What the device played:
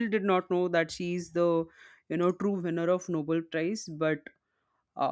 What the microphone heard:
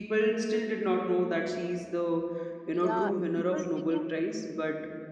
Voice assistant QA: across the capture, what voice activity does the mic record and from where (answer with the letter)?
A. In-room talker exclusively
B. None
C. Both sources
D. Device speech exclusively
C